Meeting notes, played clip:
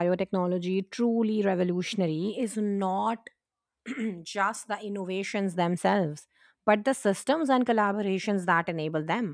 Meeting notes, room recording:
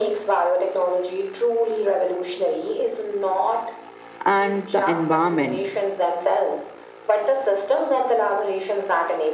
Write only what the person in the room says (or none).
and the environment.